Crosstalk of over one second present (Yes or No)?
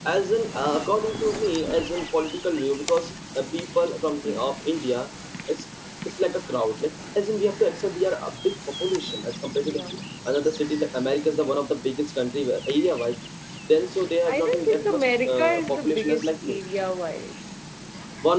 Yes